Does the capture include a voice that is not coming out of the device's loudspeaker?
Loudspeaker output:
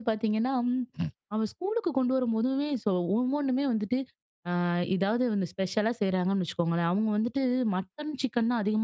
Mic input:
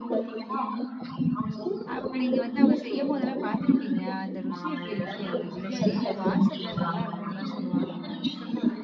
Yes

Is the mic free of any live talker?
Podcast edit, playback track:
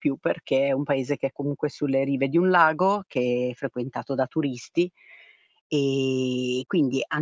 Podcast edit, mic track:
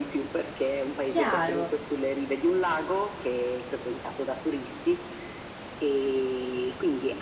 No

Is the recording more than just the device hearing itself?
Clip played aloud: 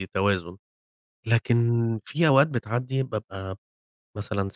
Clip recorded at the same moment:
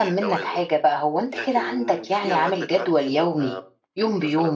Yes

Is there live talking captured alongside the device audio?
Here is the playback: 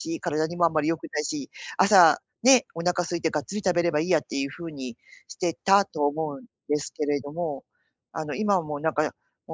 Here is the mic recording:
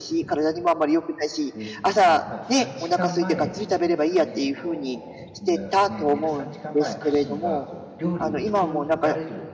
Yes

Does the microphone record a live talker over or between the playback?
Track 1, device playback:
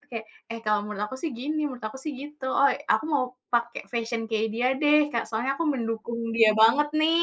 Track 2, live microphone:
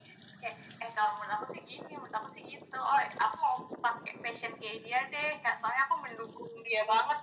No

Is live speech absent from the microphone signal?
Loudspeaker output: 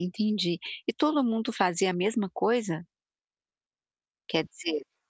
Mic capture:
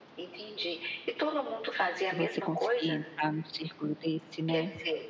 No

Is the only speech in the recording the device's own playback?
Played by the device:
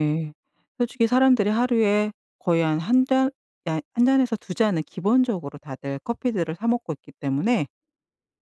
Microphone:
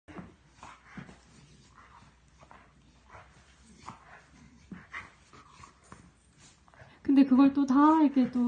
No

